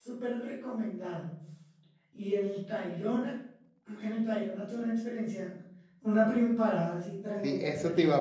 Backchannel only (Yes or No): No